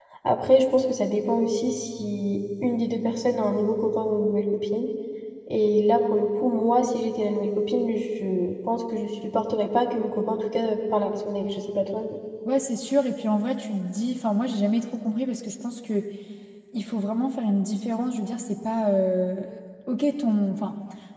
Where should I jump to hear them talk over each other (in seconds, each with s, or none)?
none